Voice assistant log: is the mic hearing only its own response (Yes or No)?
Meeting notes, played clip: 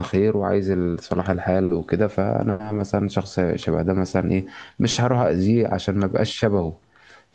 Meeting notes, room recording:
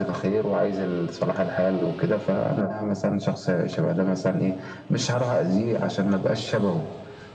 Yes